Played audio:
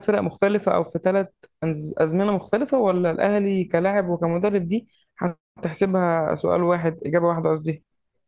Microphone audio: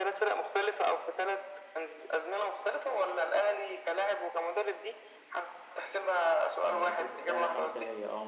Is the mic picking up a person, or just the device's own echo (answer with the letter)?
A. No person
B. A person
B